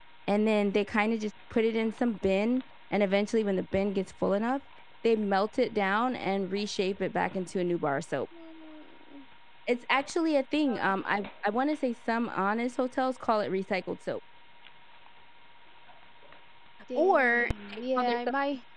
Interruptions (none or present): present